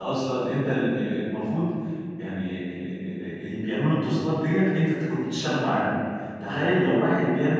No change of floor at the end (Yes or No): Yes